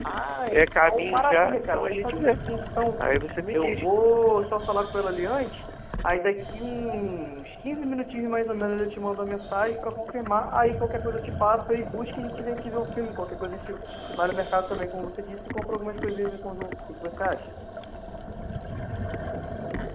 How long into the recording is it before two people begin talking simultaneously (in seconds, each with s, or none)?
0.5 s